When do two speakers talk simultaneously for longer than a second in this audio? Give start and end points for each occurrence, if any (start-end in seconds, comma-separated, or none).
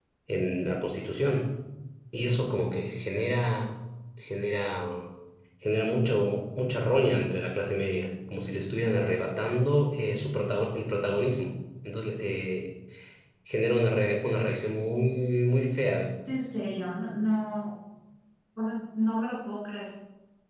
none